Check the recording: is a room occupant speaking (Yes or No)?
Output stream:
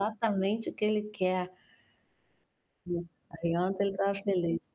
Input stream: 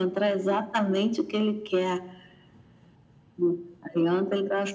No